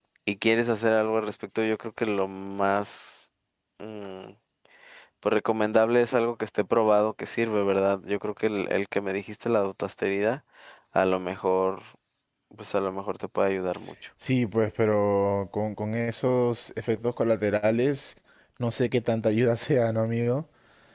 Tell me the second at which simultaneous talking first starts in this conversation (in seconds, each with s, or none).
none